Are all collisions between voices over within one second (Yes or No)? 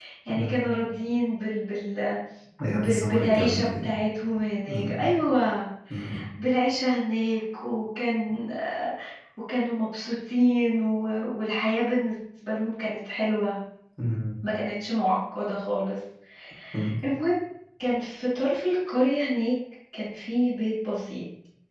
No